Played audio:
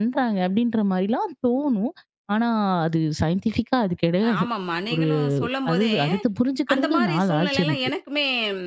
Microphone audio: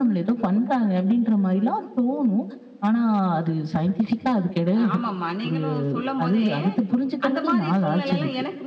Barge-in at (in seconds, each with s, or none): none